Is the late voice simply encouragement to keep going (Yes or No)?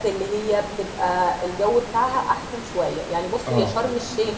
Yes